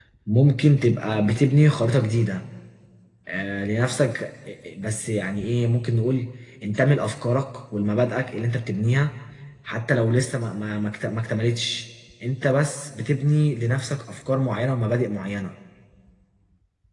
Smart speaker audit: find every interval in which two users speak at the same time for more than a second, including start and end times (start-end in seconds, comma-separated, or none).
none